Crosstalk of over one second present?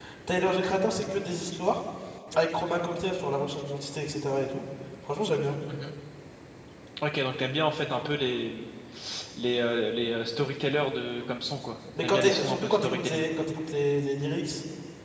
Yes, from 12.0 s

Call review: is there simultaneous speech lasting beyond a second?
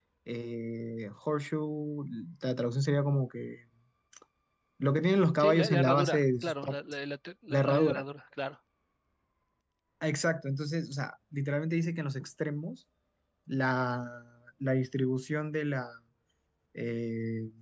Yes, from 5.4 s

